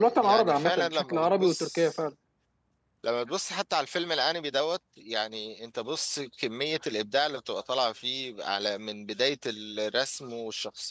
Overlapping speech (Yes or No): Yes